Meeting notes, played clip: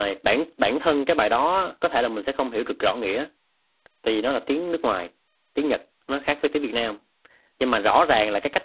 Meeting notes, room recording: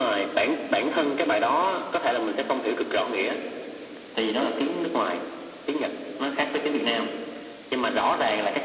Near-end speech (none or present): none